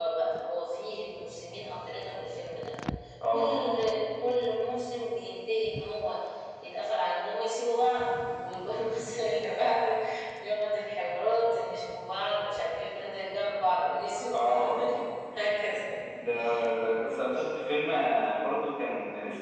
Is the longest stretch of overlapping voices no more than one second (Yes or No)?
Yes